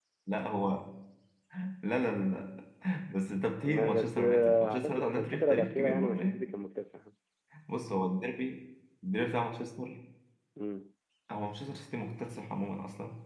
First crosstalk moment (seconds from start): 3.6 s

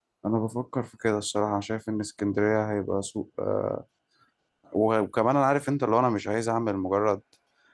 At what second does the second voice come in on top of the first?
none

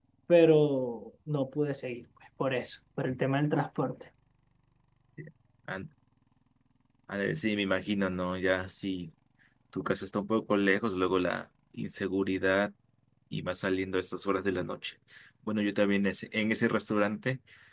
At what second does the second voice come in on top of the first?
none

